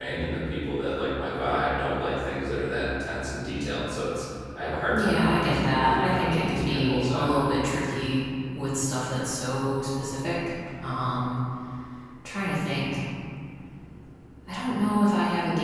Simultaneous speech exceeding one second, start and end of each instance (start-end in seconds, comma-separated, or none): 4.9-7.5